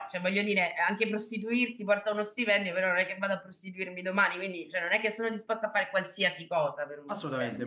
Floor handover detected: Yes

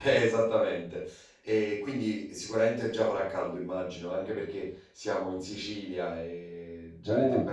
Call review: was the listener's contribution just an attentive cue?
No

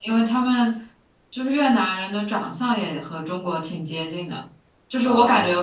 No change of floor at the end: Yes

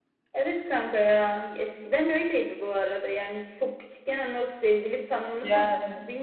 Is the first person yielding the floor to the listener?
No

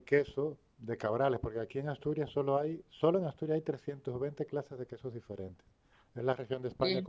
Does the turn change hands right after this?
No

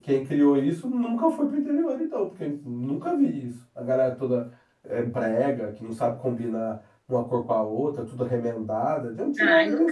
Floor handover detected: Yes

